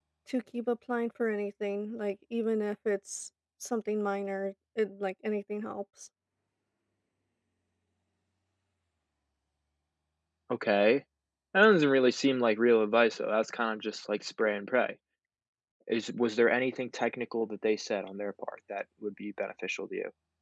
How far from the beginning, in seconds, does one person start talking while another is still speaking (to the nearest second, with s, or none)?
none